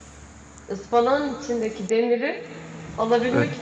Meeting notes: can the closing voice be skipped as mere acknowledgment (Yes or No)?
Yes